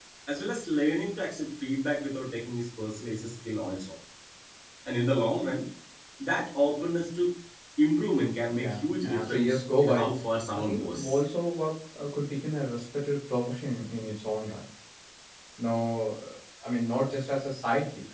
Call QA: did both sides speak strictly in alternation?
No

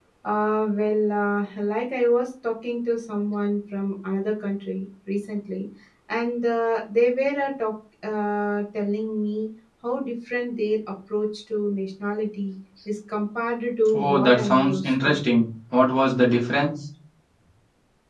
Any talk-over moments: Yes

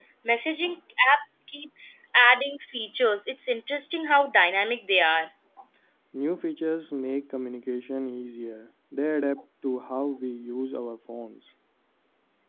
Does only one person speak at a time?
Yes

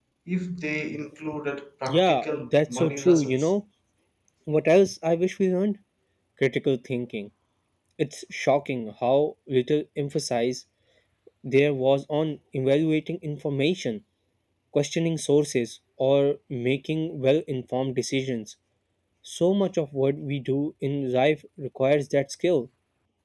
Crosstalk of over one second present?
Yes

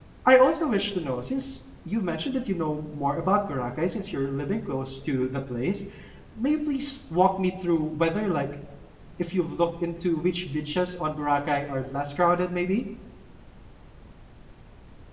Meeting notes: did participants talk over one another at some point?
No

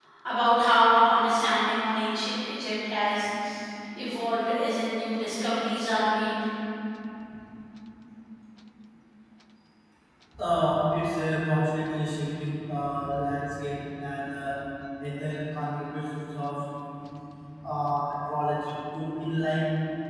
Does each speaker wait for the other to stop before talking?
Yes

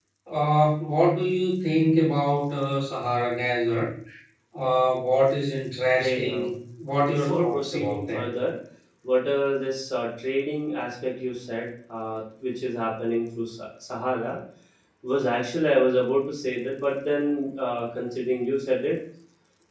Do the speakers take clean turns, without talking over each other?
No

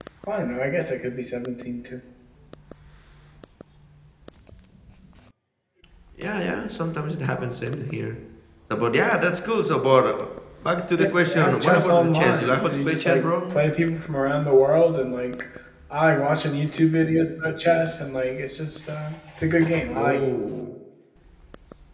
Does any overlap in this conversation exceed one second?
Yes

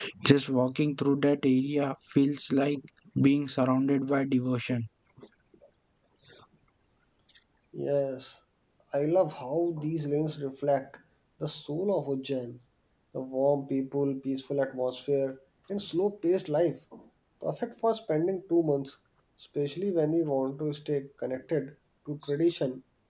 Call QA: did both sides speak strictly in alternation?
Yes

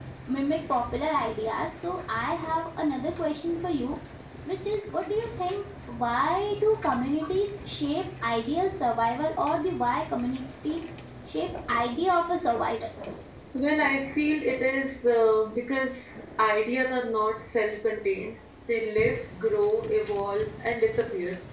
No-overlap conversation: Yes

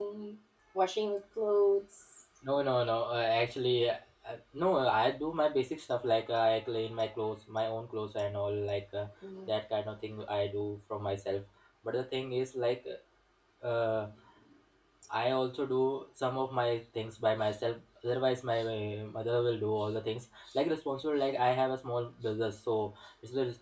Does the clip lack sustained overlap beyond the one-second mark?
Yes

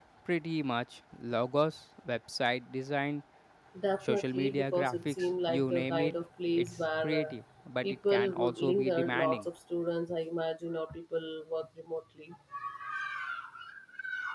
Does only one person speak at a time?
No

